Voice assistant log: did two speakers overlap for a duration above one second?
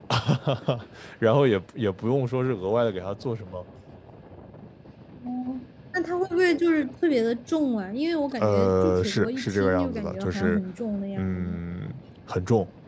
Yes, from 8.4 s

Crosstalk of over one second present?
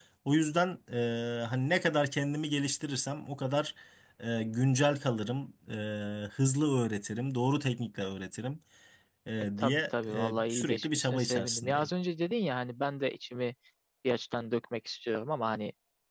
Yes, from 9.6 s

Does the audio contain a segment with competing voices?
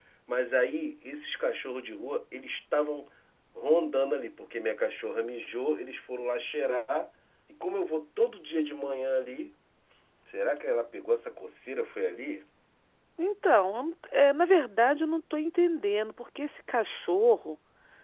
No

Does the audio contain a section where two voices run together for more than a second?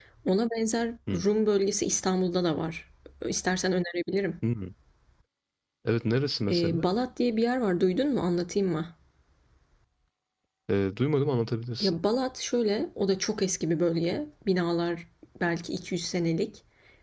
No

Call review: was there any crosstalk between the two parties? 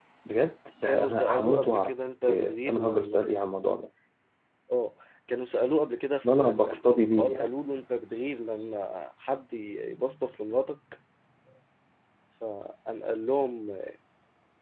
Yes, from 0.8 s

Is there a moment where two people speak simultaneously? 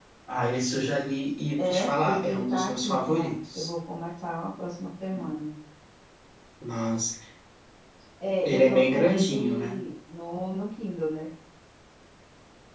Yes, from 1.6 s

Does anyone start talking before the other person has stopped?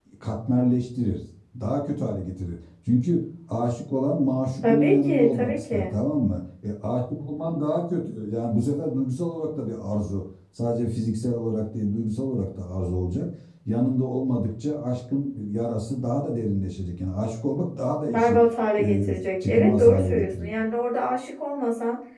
Yes, from 4.6 s

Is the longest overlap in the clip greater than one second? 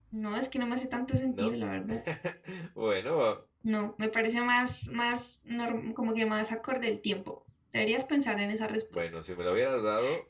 No

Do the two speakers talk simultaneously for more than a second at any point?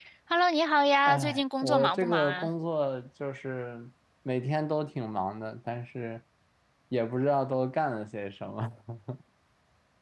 Yes, from 1.1 s

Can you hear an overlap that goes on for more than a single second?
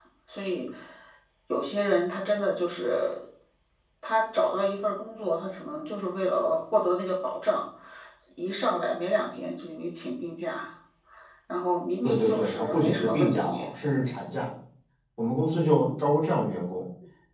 Yes, from 12.0 s

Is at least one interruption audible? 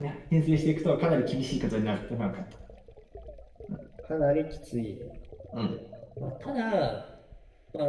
No

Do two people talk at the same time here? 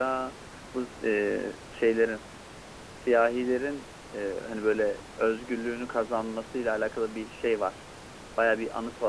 No

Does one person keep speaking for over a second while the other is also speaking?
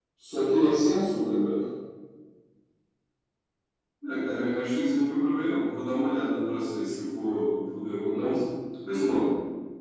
No

